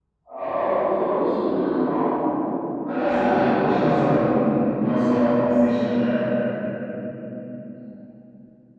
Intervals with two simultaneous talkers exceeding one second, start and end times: 2.9-4.4

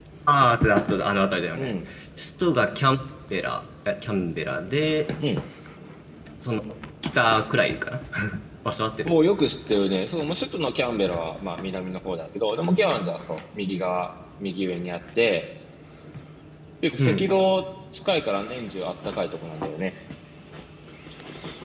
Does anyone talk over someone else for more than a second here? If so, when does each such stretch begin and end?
none

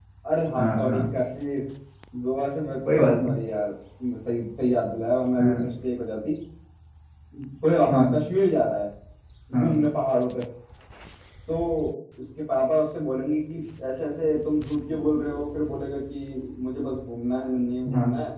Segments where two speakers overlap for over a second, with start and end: none

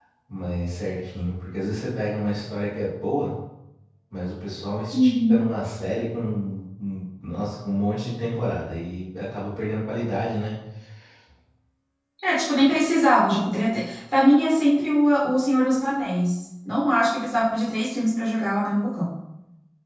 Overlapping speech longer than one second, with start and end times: none

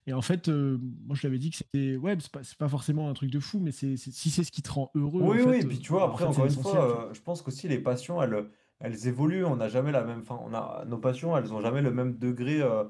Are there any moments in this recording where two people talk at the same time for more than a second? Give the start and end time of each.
5.2-7.0

